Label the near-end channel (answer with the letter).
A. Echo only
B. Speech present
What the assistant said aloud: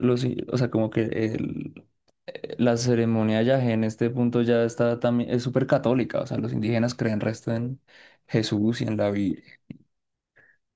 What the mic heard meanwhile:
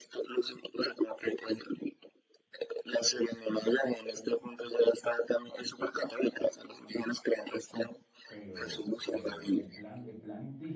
B